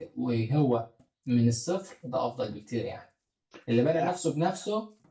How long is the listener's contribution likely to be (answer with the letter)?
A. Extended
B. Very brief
B